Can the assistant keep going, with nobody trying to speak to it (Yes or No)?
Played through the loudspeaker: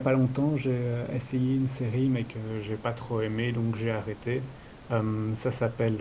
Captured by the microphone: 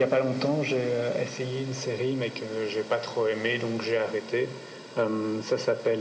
Yes